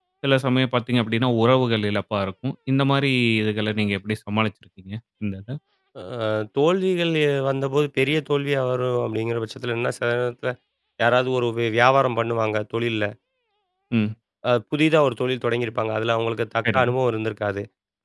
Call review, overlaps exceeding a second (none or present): none